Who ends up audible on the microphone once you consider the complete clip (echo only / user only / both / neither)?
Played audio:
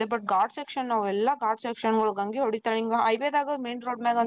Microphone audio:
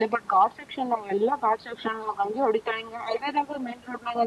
echo only